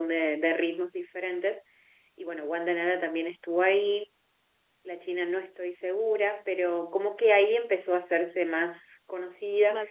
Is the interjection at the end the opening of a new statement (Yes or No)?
No